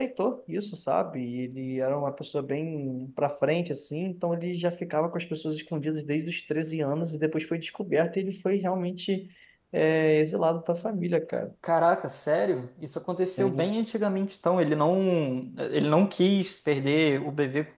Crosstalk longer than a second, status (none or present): none